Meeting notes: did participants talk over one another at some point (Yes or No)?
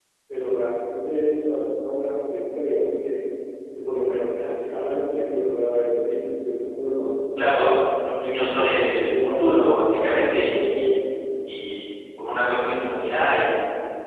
Yes